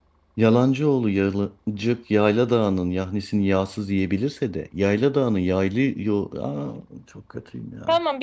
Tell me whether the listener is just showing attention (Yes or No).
No